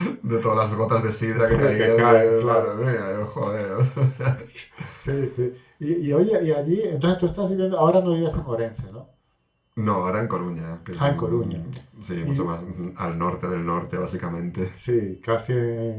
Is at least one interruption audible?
Yes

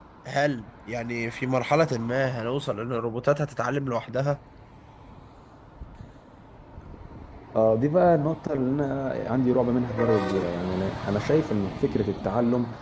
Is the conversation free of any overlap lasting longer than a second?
Yes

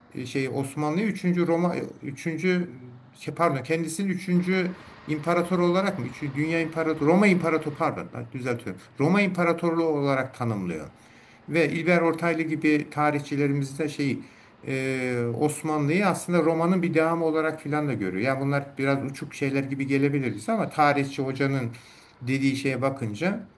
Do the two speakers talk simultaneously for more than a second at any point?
No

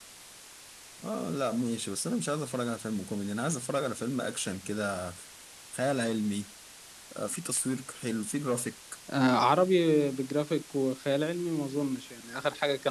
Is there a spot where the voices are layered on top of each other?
No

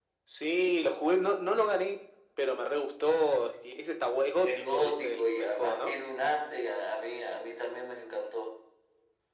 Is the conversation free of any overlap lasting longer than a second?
No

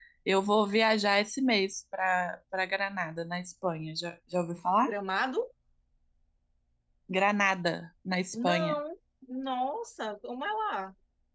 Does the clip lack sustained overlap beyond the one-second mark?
Yes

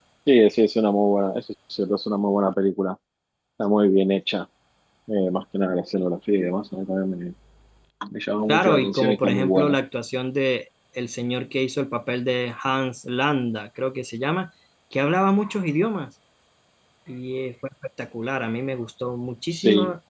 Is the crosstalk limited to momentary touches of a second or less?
No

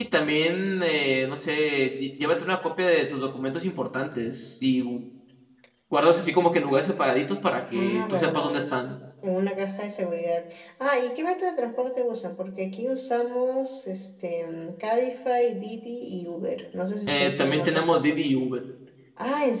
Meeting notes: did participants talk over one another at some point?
Yes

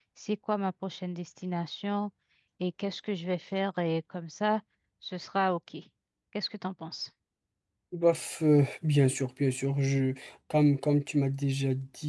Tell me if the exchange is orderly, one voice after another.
Yes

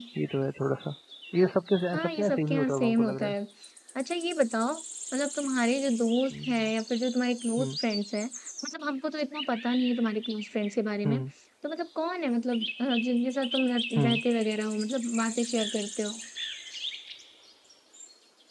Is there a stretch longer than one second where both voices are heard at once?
Yes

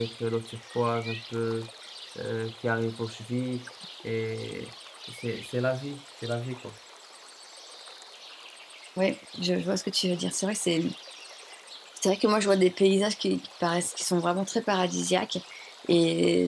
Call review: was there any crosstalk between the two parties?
No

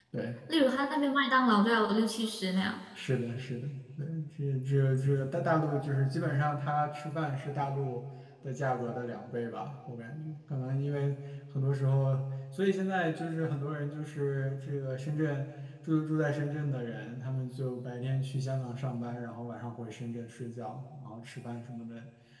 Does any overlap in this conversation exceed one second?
No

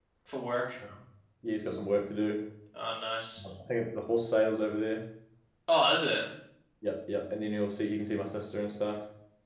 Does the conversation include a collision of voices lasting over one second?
No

